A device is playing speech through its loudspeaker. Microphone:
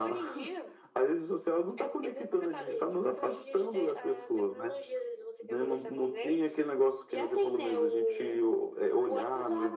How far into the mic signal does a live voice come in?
none

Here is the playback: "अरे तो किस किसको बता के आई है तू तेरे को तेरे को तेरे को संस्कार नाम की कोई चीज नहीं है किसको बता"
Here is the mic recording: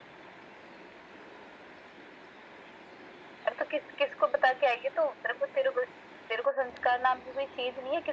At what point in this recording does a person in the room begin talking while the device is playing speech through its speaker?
none

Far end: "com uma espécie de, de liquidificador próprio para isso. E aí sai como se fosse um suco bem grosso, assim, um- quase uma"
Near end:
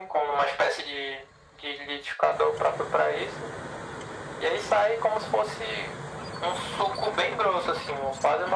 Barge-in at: none

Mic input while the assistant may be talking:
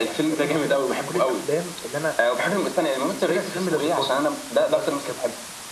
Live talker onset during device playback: none

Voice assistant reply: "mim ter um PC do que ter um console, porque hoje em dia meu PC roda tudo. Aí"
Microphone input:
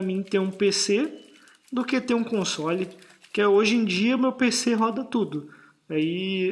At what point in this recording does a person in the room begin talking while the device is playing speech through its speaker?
none

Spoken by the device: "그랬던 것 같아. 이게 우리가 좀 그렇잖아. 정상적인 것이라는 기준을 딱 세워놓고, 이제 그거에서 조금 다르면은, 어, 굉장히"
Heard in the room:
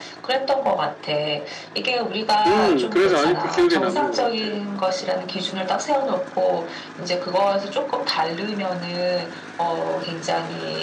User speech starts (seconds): 2.5 s

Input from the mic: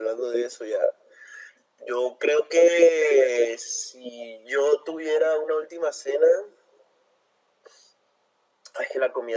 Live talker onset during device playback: none

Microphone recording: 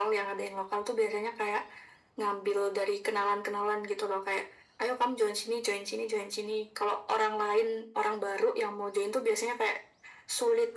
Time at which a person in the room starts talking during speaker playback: none

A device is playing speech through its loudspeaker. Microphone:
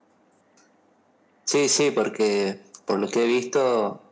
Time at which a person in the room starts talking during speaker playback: none

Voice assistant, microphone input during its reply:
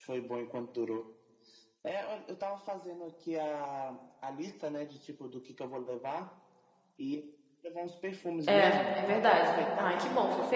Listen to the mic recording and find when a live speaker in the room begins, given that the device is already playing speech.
8.5 s

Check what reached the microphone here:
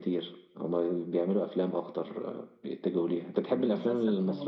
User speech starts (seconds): 3.5 s

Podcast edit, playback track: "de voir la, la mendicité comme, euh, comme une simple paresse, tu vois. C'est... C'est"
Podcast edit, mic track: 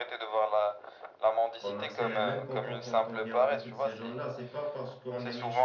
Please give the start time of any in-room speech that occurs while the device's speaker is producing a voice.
1.6 s

